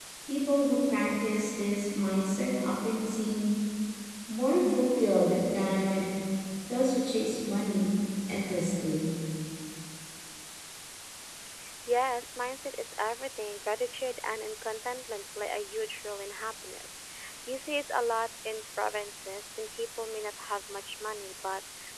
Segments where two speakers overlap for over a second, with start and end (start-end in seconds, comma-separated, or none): none